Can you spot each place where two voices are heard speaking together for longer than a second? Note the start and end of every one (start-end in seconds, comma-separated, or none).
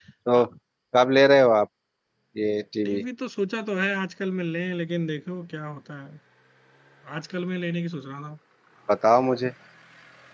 none